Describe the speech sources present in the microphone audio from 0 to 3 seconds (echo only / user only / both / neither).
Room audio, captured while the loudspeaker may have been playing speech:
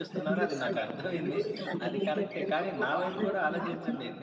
both